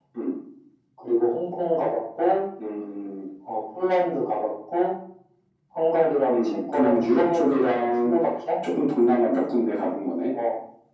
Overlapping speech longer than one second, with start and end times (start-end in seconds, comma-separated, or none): 6.3-8.1